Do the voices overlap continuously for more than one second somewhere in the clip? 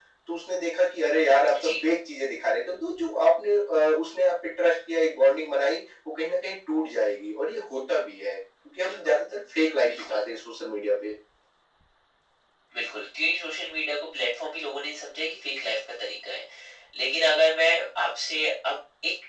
No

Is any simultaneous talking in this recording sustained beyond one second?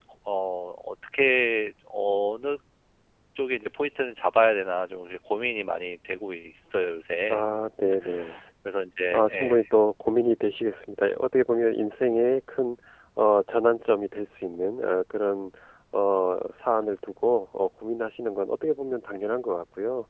No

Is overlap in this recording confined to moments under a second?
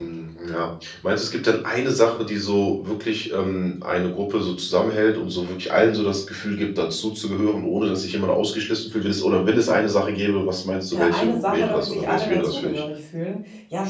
No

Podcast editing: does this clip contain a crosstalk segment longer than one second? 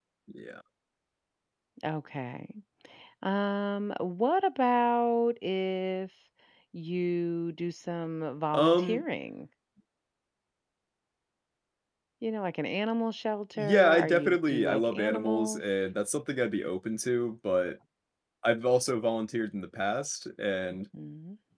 Yes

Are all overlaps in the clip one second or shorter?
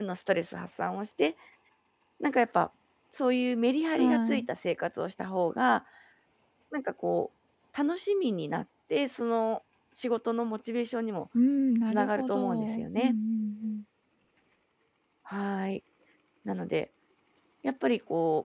No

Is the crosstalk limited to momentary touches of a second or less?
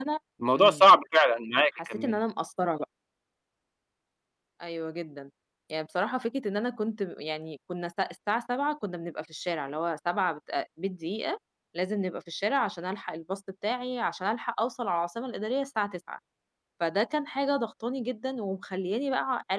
Yes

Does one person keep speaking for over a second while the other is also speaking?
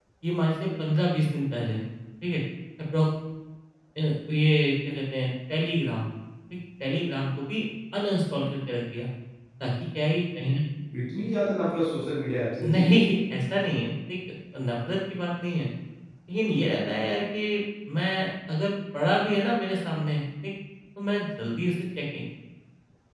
No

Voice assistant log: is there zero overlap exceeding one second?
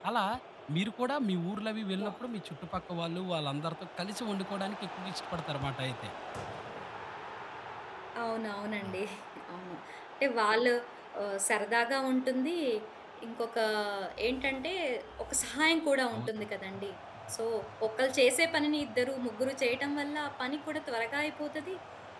Yes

